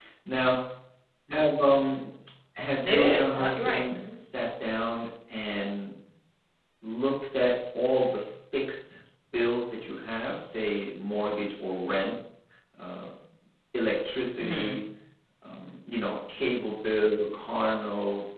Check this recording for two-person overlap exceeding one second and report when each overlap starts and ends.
2.8-4.2

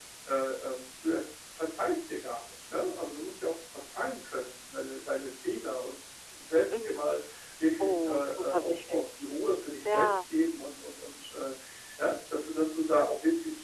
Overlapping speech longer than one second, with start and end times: 7.8-9.1

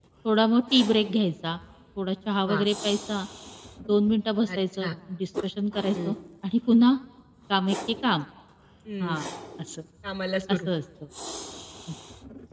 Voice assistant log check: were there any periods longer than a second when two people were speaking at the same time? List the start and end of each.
none

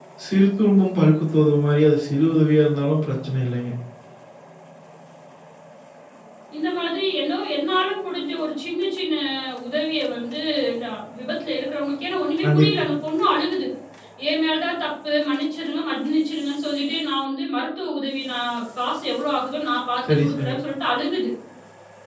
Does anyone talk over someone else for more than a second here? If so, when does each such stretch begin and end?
none

